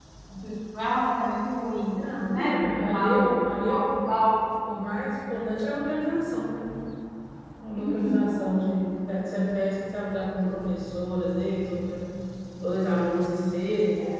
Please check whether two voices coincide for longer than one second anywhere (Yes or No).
Yes